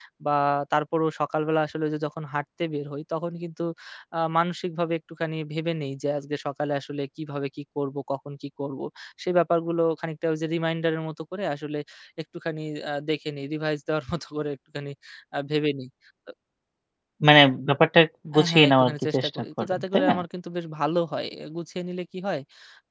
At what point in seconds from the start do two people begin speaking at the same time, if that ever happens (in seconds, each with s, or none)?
18.3 s